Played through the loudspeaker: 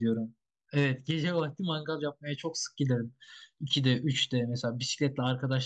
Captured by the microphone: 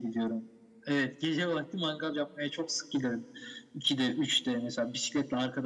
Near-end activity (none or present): none